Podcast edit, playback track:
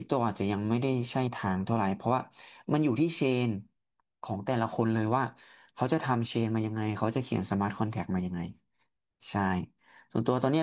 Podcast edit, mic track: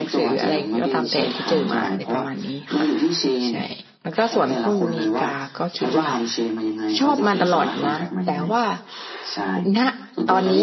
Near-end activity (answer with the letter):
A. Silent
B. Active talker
B